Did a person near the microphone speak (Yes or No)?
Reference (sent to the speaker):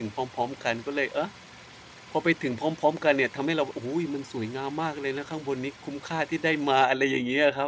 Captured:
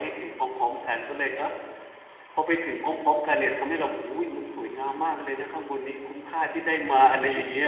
No